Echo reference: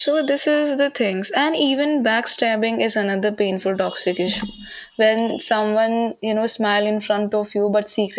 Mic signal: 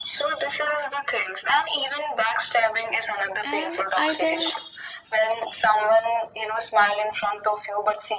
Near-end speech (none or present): present